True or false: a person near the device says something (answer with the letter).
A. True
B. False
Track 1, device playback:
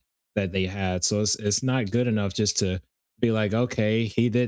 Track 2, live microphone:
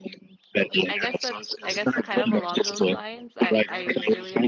A